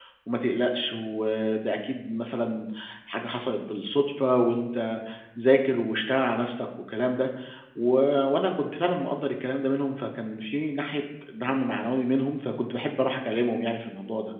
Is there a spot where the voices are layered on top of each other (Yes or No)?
No